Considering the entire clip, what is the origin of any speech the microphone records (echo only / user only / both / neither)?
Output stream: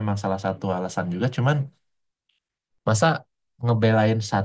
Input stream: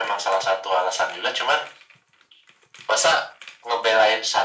echo only